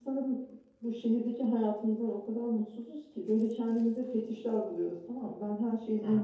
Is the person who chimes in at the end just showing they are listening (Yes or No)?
Yes